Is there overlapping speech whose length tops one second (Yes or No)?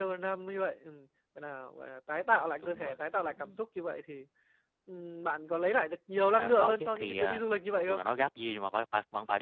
Yes